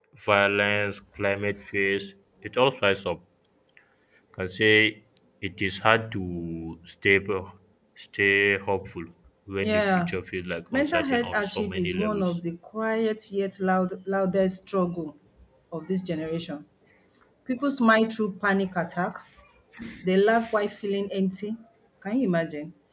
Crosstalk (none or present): present